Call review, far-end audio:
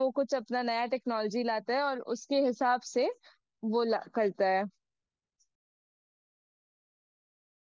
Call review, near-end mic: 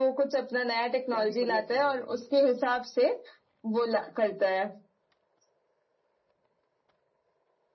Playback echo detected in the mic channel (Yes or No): Yes